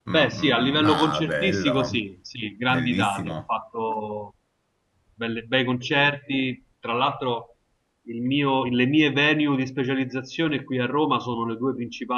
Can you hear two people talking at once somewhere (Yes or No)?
Yes